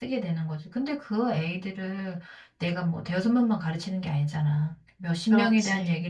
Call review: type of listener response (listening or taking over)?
listening